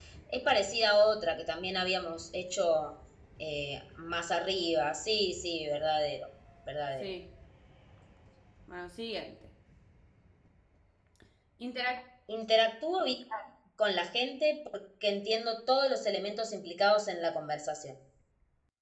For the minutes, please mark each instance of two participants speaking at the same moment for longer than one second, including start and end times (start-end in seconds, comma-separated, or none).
none